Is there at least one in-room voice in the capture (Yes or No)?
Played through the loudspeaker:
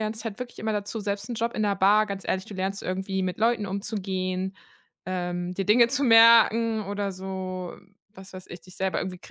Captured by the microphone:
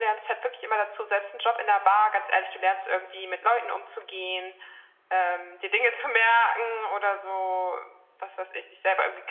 No